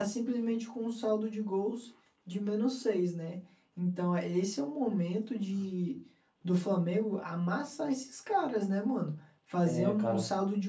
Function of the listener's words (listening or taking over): listening